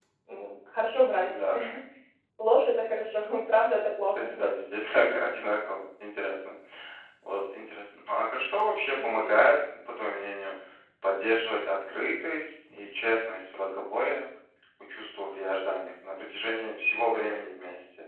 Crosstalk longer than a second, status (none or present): none